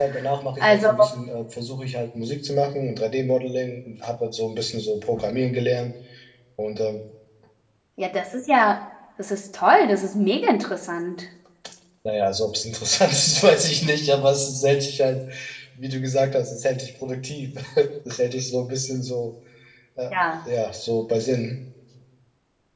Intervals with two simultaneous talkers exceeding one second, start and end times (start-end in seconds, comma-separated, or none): none